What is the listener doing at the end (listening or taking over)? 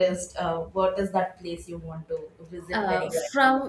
taking over